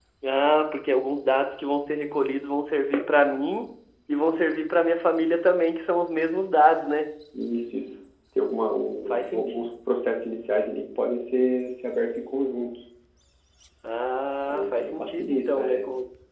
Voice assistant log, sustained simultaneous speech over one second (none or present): present